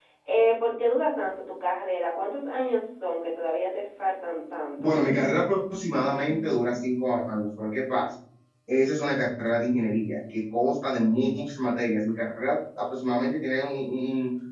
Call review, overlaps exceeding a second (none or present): none